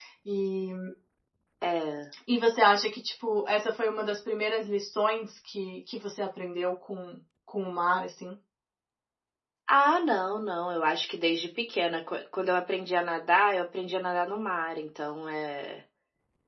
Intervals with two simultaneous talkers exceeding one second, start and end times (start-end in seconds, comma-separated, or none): none